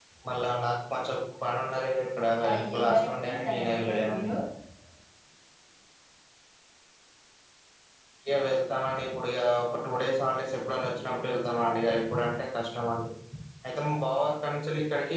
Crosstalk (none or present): present